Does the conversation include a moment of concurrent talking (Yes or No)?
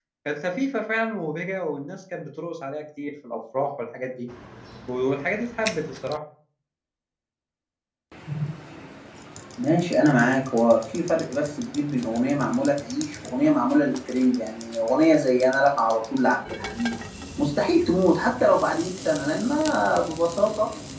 No